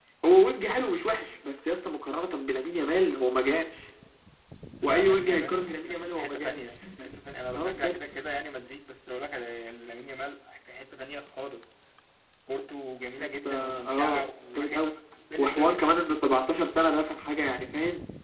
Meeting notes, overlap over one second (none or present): present